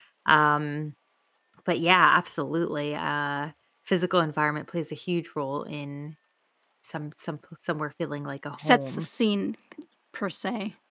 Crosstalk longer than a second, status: none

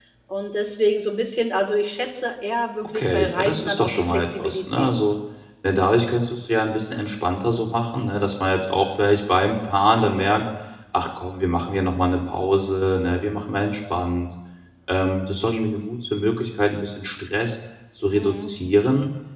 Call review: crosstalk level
present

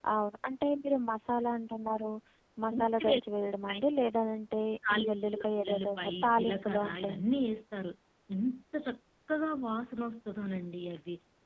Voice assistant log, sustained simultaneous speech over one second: present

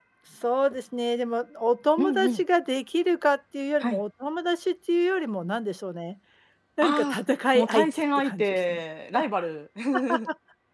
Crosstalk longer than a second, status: present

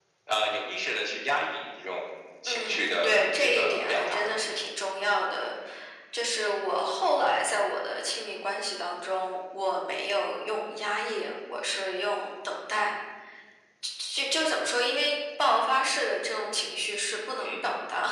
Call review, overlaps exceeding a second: present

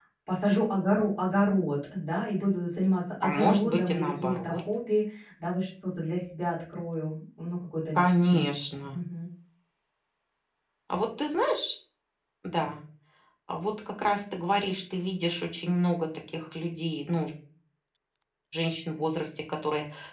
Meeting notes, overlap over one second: present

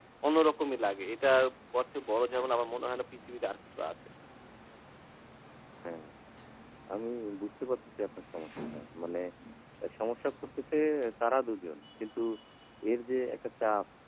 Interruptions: none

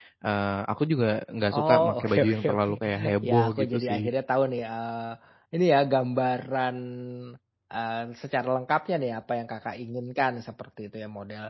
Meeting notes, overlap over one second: present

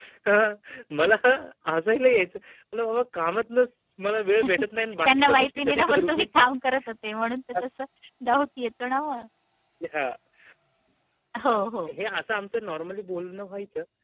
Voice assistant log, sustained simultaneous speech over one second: present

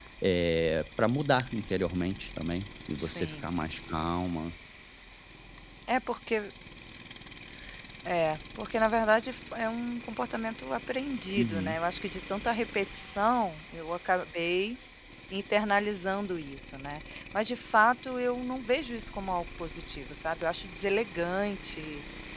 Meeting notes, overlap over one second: none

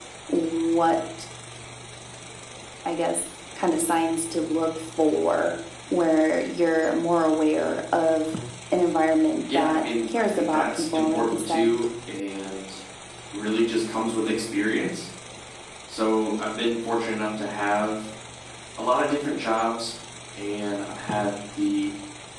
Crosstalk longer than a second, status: present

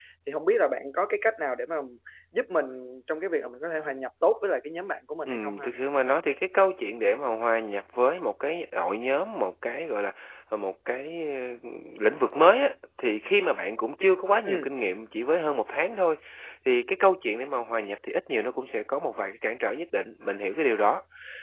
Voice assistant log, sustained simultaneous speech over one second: none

